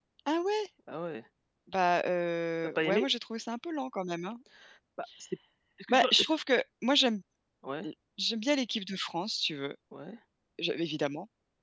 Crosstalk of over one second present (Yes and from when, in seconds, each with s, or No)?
No